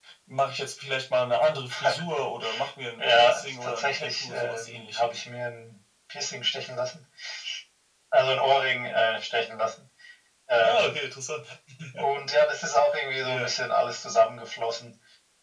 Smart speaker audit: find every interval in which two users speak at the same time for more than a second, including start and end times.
3.0-5.2

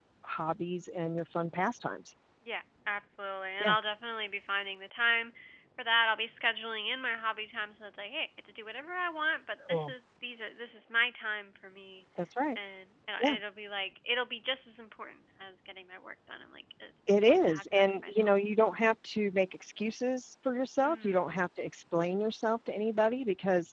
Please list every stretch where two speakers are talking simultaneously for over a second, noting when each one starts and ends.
17.1-18.3

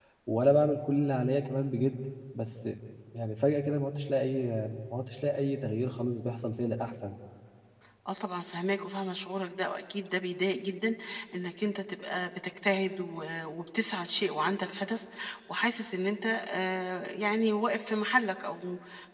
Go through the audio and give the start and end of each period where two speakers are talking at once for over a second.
none

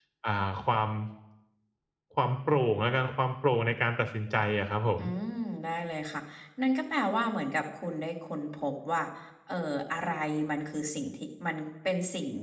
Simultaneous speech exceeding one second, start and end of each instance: none

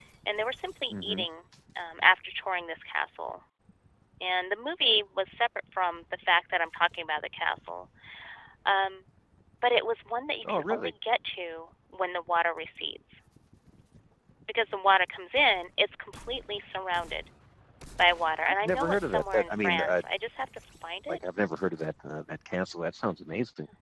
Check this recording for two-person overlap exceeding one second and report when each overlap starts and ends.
18.4-20.0

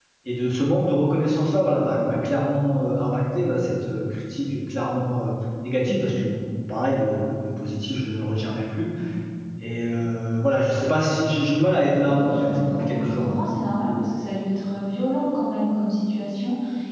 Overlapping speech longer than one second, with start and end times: 12.0-13.3

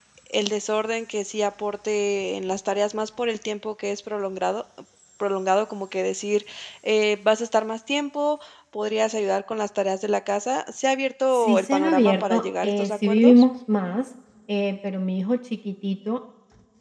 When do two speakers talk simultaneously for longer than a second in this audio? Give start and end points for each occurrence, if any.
11.3-13.4

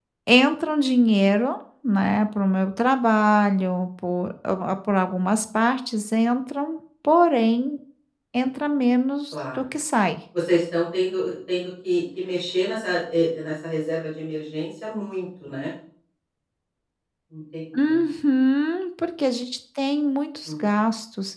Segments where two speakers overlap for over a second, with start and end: none

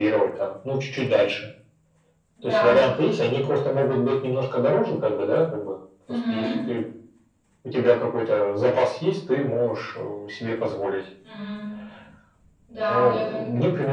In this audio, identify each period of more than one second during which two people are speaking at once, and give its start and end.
none

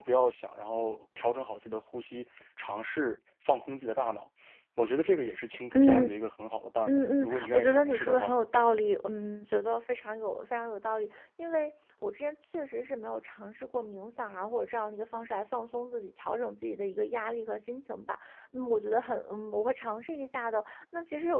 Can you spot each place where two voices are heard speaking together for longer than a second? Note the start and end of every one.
6.9-8.4

